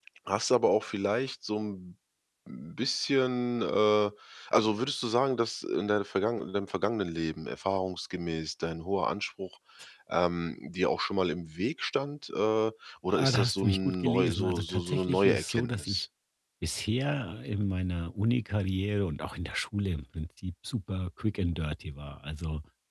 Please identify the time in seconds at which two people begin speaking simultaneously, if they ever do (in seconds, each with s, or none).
13.1 s